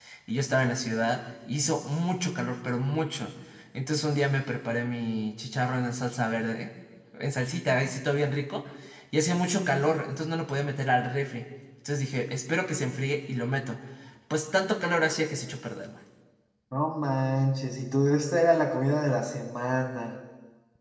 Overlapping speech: No

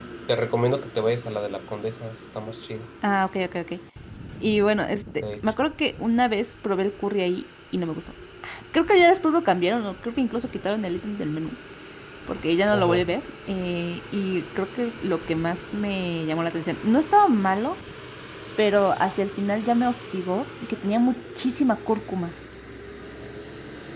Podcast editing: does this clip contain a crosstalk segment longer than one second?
No

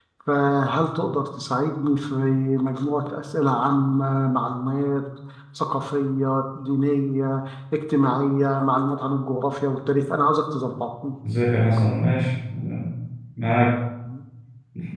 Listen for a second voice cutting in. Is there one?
No

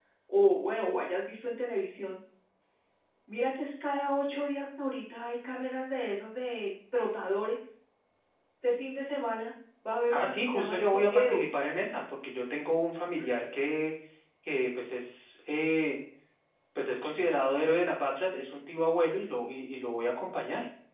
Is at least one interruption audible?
Yes, from 10.1 s

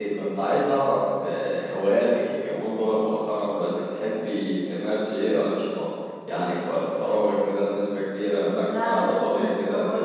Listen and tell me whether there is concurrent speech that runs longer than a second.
Yes, from 8.5 s

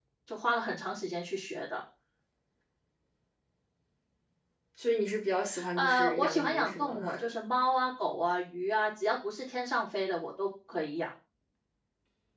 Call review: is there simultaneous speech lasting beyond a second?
Yes, from 5.8 s

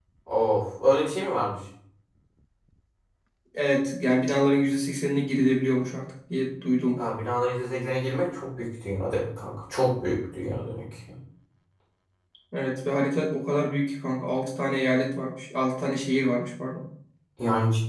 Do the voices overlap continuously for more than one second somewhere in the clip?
No

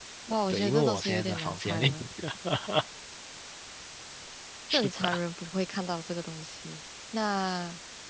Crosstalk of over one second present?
Yes, from 0.5 s

